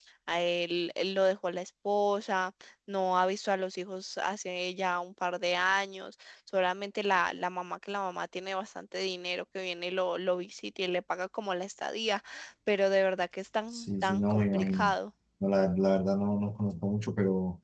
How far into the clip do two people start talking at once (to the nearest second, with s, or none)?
14 s